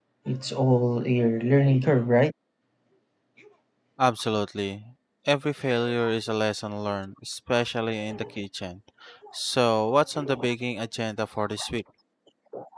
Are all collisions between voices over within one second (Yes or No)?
Yes